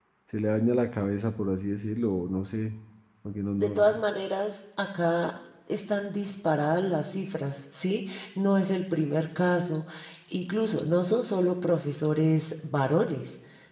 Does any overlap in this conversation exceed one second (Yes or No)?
No